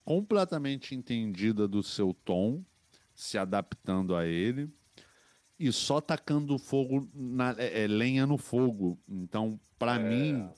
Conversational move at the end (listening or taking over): listening